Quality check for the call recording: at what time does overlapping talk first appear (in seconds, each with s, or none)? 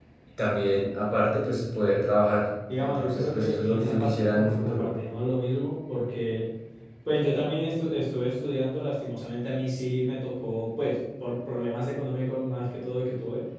2.7 s